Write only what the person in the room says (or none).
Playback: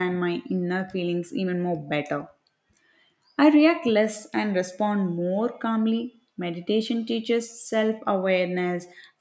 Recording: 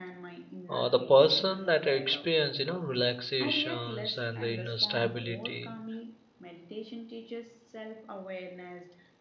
uh, the person that experience you know relaxations and the inner stability.